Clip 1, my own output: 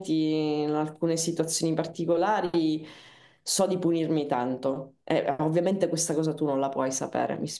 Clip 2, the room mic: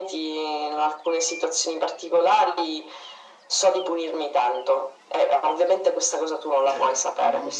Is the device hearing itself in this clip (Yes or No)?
Yes